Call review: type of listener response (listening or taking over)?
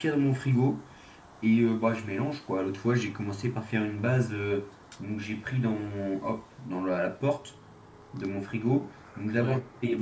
listening